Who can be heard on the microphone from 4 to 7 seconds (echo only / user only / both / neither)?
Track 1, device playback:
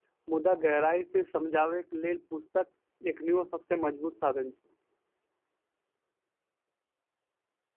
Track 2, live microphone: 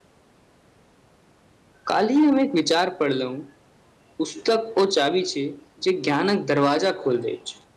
user only